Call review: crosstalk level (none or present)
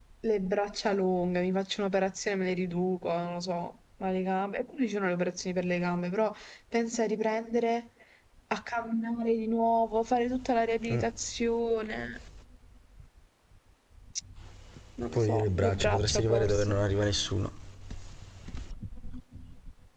present